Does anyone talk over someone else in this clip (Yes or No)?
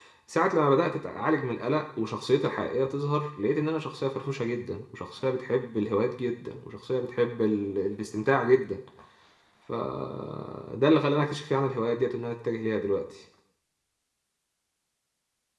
No